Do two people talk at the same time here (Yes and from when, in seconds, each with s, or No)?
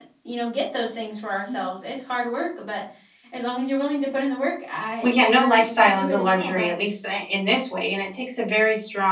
Yes, from 5.0 s